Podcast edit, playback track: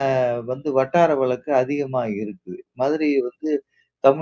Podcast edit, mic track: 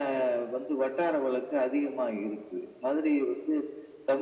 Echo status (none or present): present